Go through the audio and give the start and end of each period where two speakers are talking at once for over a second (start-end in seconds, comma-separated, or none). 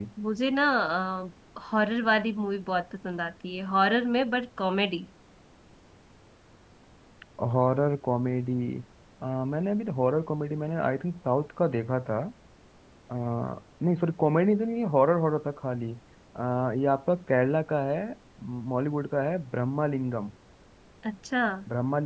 none